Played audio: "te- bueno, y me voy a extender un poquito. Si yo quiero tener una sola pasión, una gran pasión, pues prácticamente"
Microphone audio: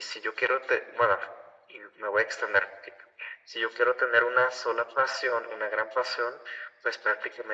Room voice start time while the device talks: none

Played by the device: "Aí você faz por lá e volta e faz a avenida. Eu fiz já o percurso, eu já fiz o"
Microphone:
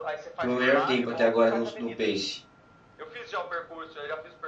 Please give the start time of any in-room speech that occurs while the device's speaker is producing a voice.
0.4 s

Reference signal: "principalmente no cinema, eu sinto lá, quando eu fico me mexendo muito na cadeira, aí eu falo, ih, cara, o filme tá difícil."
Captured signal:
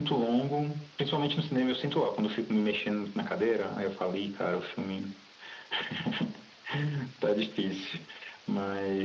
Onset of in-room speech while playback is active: none

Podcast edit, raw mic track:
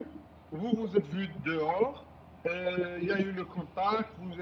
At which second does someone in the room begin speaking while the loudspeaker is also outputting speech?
none

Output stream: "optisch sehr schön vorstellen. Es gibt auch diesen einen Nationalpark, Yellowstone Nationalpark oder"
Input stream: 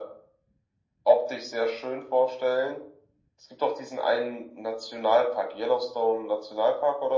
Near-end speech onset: none

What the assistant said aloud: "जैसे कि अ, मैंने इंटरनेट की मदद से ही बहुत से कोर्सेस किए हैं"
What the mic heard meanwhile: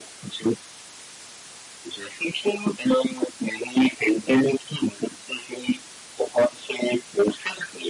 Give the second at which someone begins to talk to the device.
none

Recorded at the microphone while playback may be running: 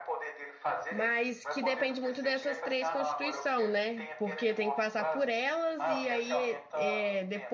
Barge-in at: 0.9 s

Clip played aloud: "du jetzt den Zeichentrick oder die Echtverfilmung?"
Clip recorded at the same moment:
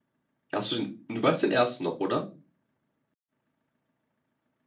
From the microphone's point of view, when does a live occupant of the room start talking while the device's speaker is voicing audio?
0.5 s

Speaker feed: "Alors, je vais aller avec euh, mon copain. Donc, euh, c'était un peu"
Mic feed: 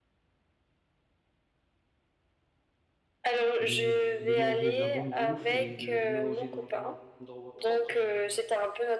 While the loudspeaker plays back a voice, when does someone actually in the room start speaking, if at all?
3.6 s

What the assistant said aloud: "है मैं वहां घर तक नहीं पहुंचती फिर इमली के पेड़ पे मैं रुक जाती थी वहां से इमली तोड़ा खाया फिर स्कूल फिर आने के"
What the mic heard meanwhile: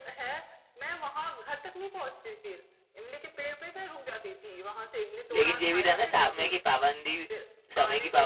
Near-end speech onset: 5.3 s

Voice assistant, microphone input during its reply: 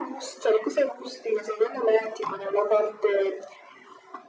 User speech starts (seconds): none

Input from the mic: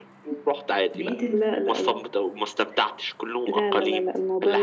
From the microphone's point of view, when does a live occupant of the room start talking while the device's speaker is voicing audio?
0.9 s

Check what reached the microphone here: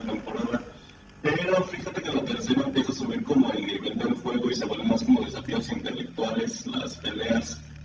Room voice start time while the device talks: none

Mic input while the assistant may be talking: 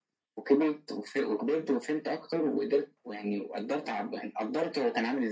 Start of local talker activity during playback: none

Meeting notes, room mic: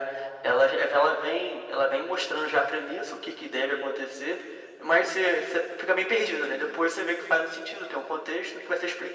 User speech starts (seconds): none

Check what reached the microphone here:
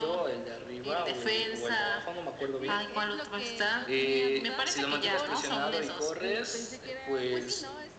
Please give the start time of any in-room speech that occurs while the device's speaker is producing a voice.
2.6 s

